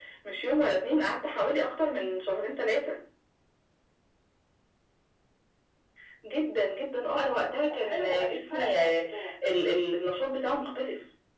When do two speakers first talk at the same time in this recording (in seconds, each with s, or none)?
7.7 s